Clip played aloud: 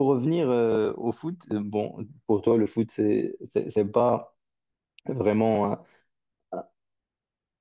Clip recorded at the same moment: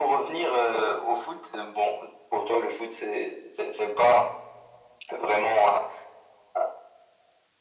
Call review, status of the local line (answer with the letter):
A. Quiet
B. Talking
A